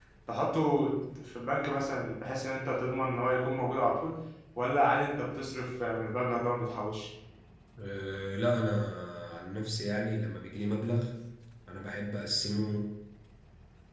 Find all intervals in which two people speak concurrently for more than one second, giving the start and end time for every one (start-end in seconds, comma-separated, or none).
none